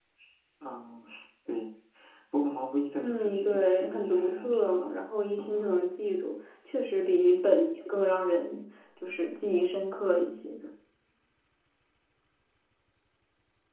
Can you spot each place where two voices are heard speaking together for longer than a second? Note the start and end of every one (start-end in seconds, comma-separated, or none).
3.0-4.9